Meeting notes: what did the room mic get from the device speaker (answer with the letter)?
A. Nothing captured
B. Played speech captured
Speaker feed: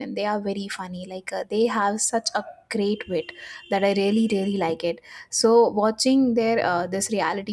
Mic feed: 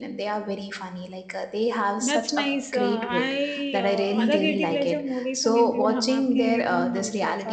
B